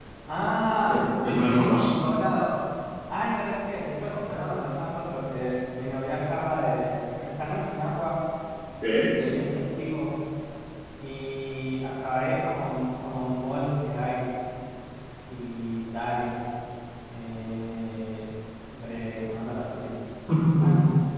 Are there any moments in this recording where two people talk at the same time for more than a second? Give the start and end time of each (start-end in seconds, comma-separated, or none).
0.7-1.9